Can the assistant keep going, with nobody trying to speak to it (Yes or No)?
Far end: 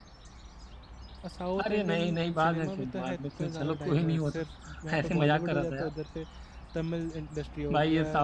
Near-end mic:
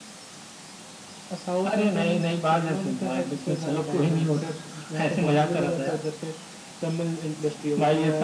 Yes